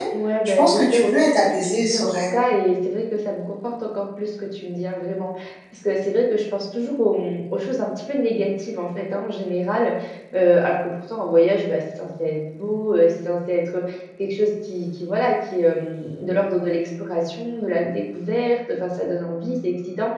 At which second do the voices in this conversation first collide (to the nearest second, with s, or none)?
1 s